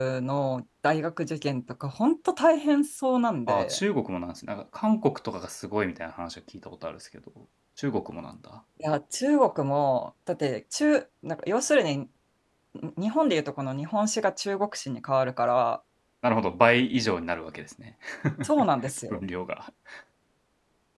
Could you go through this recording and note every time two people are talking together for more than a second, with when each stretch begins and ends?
none

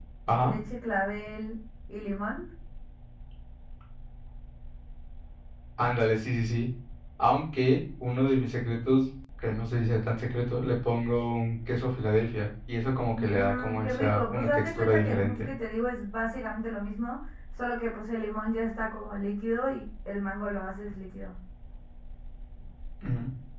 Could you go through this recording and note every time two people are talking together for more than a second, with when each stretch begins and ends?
13.2-15.5

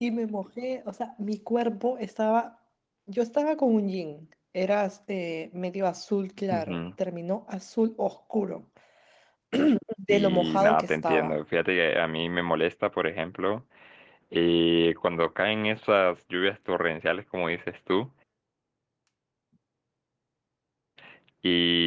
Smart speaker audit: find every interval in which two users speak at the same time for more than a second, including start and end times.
10.1-11.4

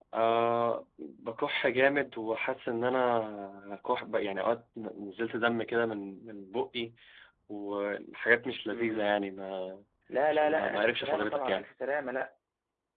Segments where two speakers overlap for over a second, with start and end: 10.3-11.7

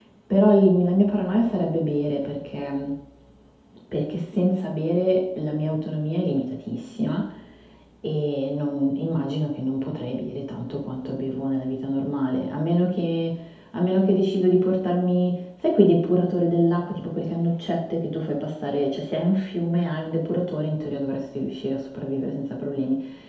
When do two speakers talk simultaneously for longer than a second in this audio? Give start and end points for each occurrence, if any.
none

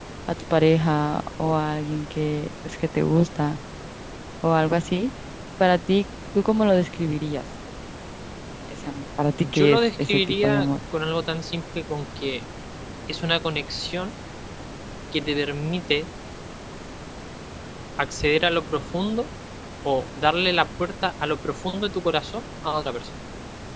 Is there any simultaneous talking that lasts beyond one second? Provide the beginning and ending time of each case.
9.4-10.7

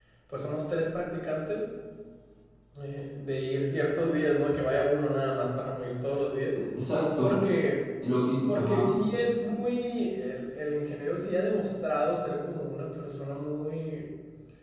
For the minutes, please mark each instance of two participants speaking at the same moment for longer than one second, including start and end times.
none

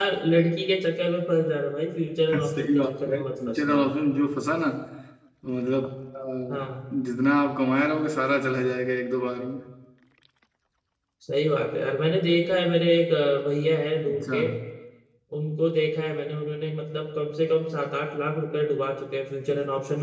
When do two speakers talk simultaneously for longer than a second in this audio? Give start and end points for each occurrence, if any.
2.4-3.8

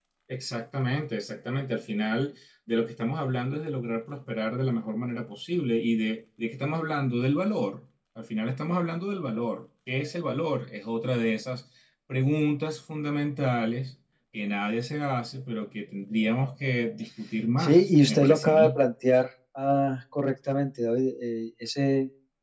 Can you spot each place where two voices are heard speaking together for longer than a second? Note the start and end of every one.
17.6-18.8

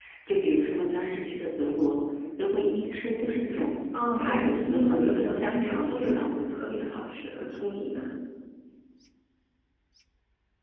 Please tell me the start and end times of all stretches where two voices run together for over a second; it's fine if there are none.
4.2-6.4

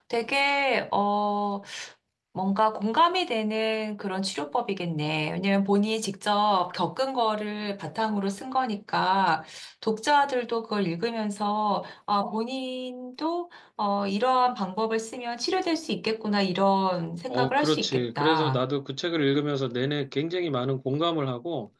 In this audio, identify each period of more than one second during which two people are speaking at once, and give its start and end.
17.3-18.6

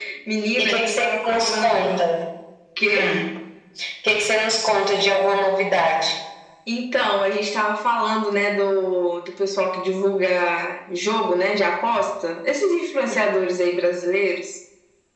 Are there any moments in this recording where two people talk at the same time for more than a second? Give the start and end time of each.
0.6-2.0

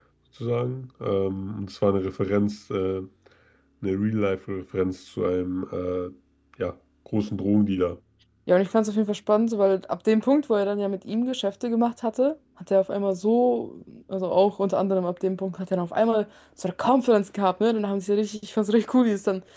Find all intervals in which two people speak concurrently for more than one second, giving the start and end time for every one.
none

